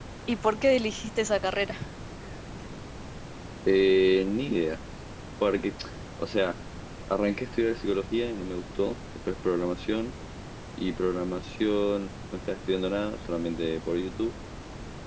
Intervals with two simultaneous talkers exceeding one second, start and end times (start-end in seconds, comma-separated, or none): none